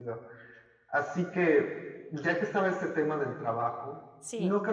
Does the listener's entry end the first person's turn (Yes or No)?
No